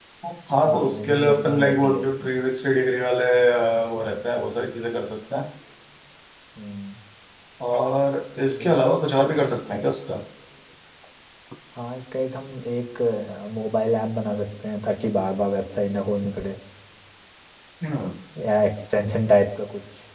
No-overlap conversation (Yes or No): No